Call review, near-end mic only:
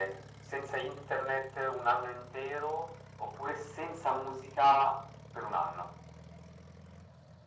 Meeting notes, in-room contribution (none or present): none